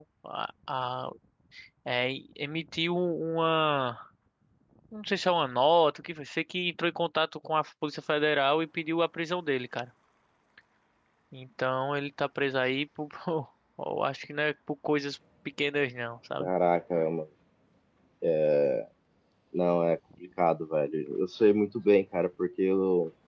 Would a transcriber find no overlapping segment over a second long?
Yes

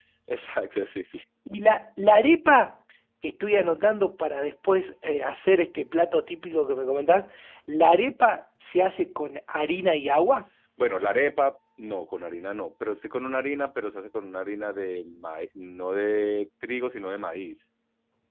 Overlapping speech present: No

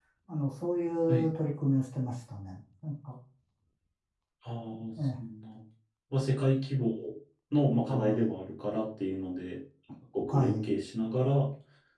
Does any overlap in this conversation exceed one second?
No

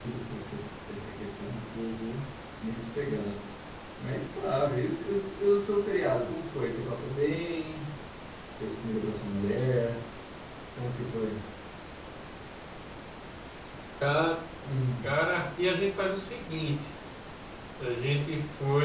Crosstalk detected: No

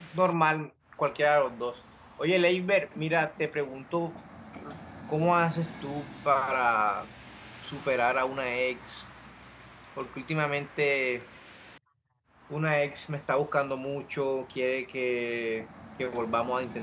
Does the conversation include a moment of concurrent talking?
No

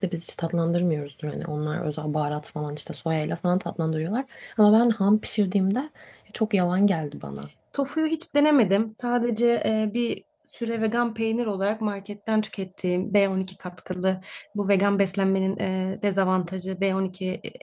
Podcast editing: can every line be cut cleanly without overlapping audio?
Yes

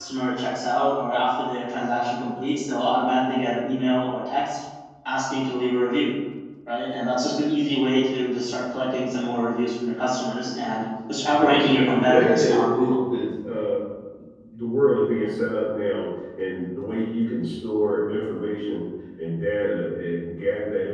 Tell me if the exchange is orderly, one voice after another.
No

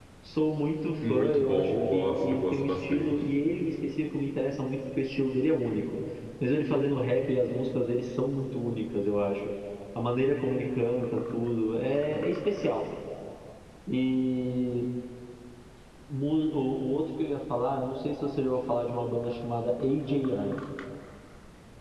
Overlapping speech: Yes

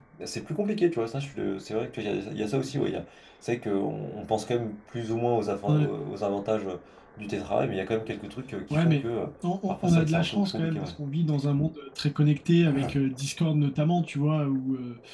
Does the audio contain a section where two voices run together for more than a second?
Yes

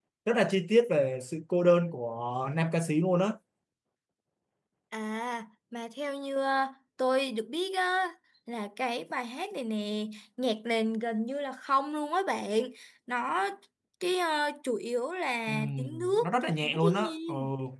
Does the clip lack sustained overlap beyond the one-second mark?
No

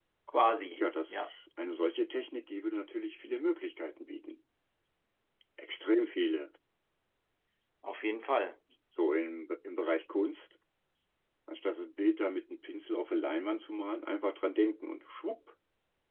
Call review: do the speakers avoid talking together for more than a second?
Yes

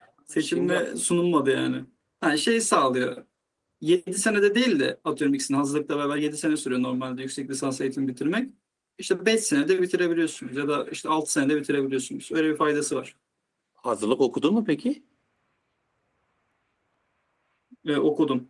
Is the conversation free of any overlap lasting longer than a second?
Yes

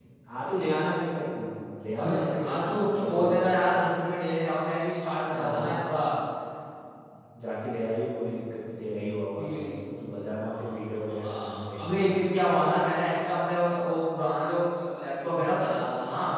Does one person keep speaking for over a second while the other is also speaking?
Yes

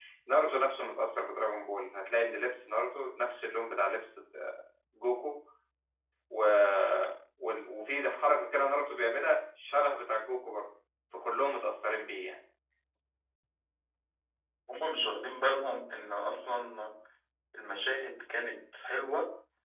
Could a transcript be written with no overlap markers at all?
Yes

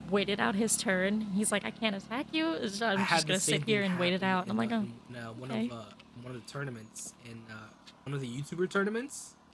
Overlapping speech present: Yes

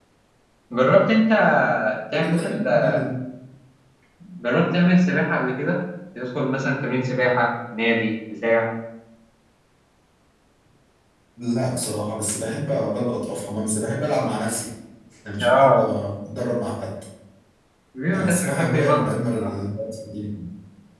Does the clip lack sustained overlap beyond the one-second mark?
No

